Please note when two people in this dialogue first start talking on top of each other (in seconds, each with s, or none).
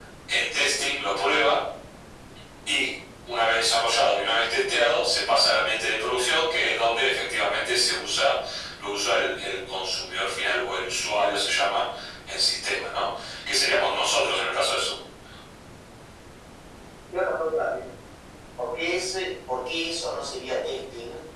none